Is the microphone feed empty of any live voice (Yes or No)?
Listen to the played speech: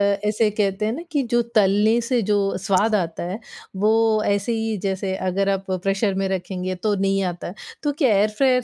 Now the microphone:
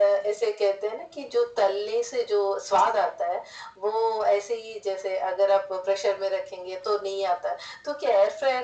Yes